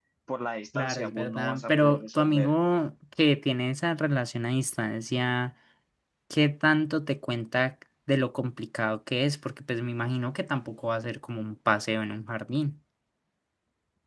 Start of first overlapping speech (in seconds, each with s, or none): 0.8 s